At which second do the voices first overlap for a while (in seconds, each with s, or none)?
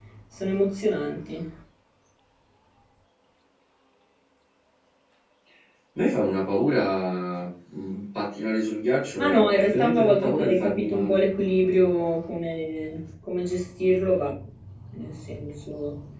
9.2 s